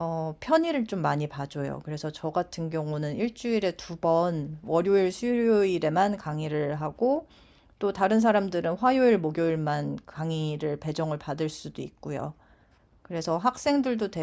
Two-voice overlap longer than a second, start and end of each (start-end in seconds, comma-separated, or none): none